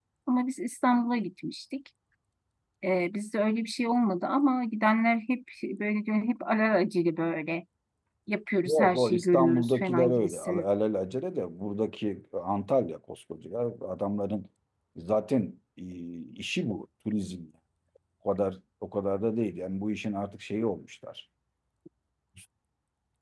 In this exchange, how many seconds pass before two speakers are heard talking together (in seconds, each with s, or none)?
8.6 s